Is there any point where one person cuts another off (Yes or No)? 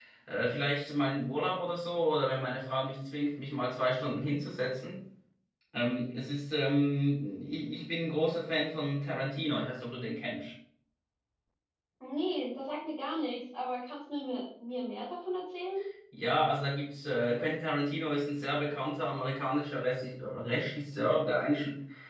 No